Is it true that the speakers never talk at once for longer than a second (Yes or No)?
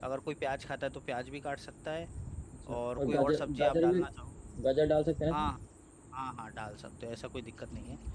No